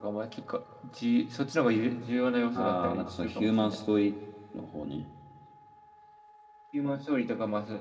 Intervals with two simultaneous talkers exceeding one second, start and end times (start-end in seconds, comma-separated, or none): 2.6-3.8